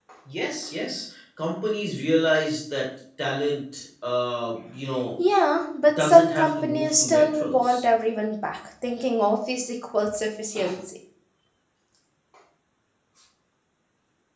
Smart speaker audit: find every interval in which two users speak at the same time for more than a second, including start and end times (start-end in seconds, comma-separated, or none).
6.0-7.8